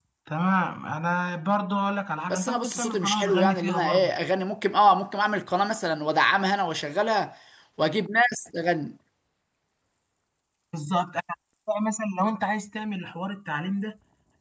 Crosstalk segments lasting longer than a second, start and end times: 2.3-4.1

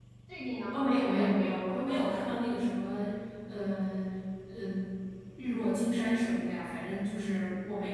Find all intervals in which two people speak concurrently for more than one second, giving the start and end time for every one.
0.7-2.0

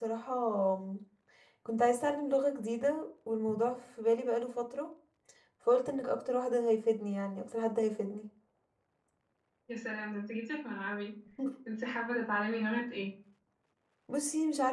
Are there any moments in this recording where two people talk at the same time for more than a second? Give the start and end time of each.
none

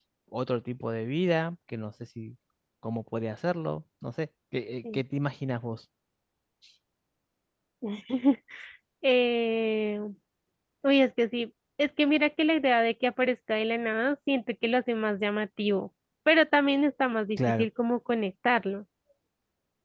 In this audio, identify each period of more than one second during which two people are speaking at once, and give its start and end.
none

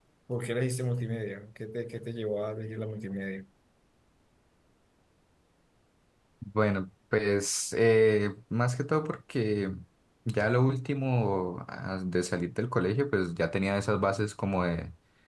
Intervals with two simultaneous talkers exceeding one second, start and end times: none

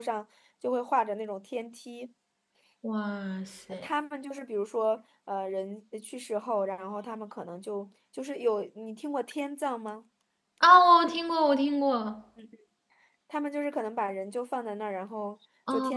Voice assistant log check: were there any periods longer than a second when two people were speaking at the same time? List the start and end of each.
none

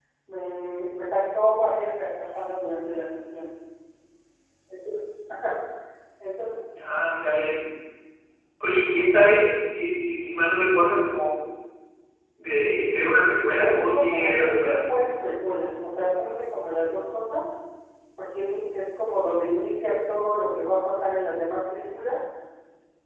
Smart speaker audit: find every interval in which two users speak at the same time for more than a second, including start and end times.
13.6-14.8

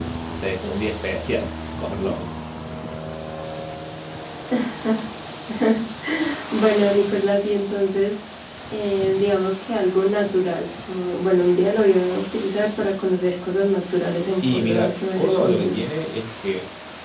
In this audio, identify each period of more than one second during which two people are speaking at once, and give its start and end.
14.4-15.8

